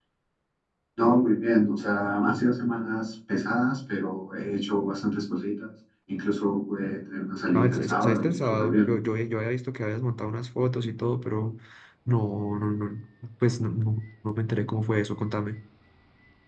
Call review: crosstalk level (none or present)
present